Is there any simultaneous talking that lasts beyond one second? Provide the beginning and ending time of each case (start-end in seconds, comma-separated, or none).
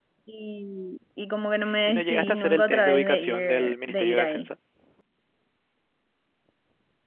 1.9-4.5